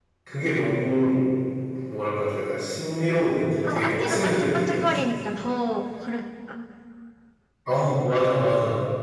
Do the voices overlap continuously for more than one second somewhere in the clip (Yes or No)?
Yes